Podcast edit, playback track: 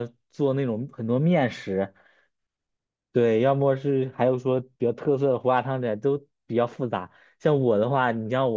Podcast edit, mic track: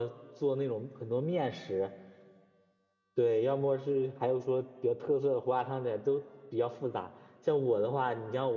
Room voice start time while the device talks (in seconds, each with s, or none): none